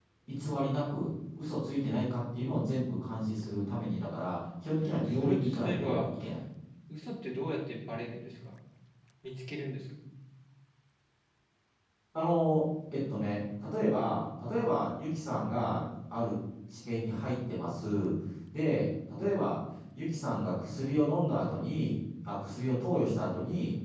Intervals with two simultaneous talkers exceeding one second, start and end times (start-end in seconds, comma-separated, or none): 4.8-6.0